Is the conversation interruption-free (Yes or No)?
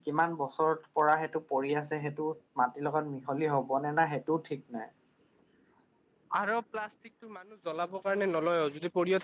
Yes